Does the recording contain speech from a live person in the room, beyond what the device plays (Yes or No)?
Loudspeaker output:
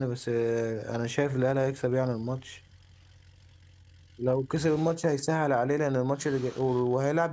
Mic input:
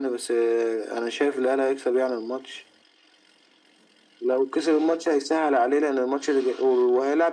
No